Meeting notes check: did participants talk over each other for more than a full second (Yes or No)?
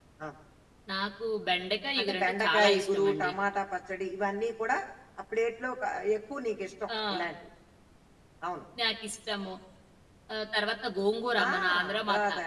Yes